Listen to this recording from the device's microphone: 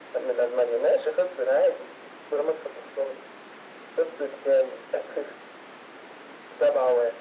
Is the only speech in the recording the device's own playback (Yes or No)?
Yes